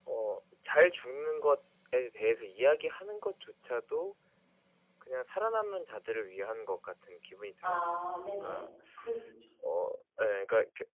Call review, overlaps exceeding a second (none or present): none